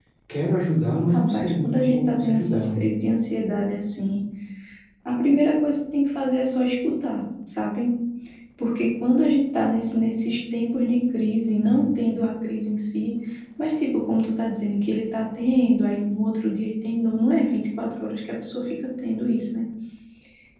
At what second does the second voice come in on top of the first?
1.1 s

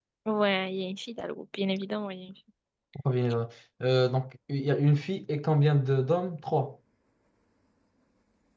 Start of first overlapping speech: none

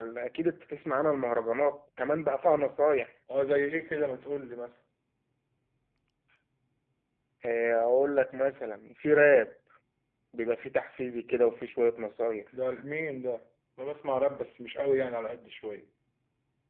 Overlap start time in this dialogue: none

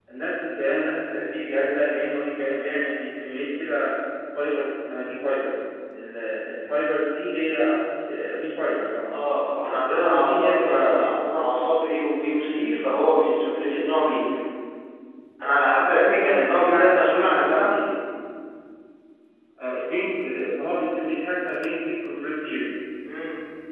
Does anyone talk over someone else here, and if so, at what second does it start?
9.6 s

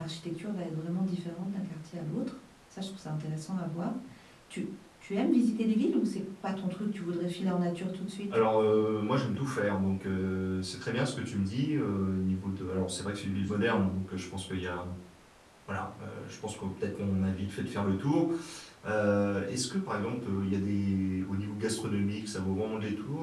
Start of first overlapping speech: none

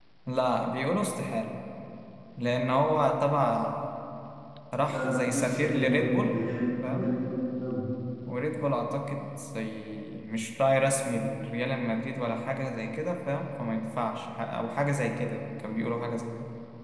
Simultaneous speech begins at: 4.8 s

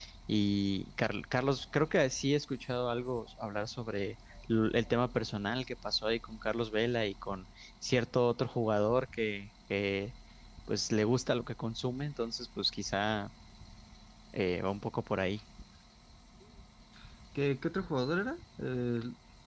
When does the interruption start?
none

